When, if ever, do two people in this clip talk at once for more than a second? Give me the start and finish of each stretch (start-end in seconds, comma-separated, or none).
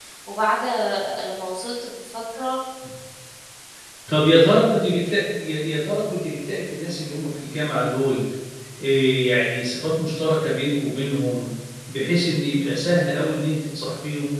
none